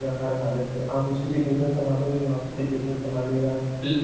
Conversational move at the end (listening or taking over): taking over